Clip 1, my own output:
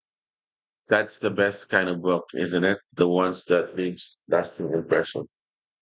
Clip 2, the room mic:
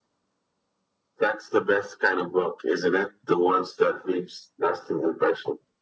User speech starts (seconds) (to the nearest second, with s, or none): none